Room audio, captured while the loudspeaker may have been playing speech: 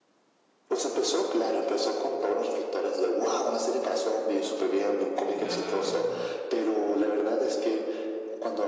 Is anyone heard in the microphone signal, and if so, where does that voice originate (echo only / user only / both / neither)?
both